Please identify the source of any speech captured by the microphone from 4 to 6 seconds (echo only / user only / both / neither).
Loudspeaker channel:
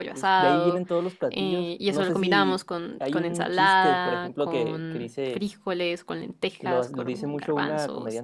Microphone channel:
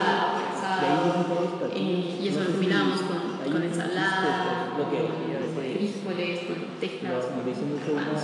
both